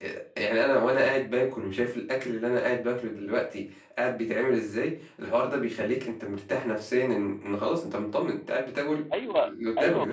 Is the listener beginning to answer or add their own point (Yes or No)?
Yes